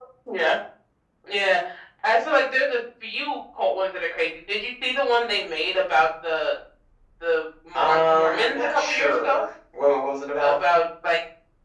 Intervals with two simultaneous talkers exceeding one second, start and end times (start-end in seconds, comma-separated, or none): 7.8-9.4